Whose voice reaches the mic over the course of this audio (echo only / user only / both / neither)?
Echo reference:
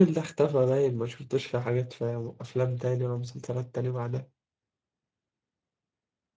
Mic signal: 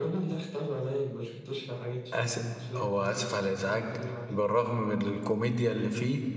both